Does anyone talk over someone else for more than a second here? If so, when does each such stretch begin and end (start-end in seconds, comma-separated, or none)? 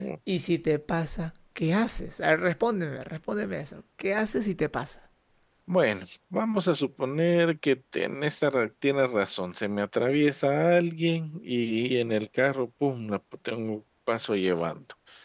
none